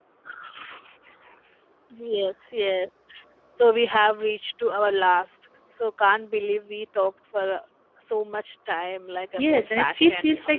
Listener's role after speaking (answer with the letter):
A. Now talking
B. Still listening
A